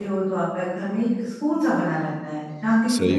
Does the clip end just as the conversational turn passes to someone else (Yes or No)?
Yes